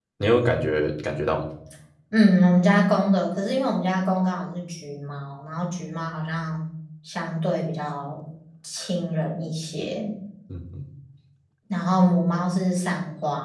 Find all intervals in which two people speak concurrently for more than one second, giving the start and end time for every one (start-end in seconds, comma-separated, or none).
none